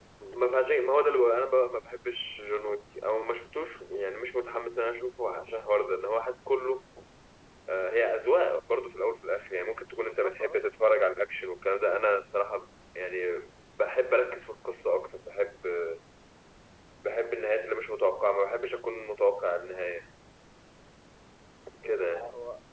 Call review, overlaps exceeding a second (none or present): none